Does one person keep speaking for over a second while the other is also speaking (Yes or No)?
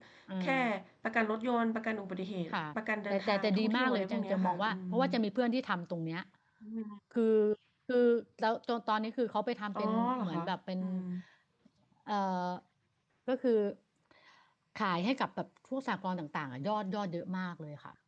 Yes